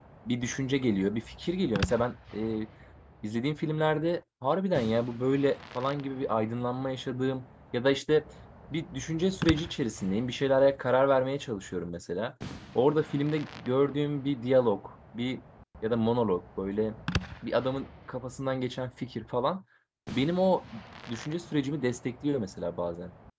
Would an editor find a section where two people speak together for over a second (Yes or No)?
No